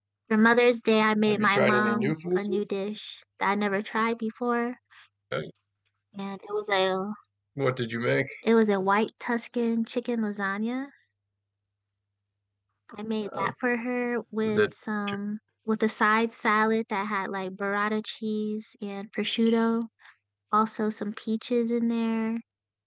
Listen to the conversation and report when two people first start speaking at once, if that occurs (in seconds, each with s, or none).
1.3 s